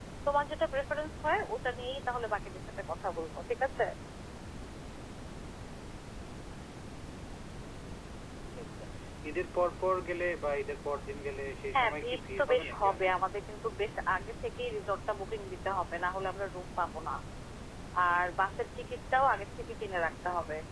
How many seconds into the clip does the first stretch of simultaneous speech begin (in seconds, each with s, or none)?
11.7 s